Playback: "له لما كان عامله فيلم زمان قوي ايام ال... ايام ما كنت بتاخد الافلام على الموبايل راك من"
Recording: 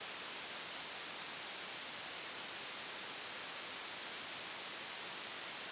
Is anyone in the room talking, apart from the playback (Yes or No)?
No